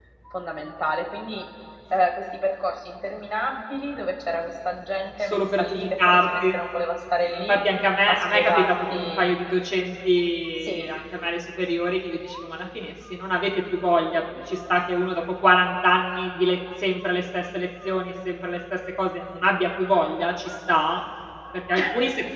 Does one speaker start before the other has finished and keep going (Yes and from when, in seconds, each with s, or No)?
Yes, from 5.2 s